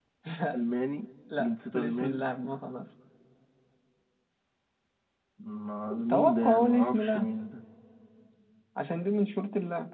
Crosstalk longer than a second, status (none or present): present